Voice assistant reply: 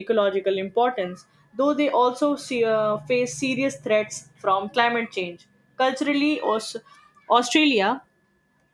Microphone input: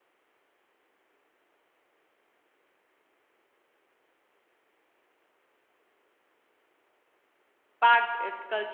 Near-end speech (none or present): present